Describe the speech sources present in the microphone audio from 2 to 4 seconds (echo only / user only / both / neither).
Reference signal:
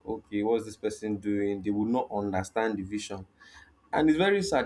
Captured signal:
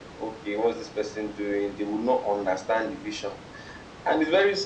echo only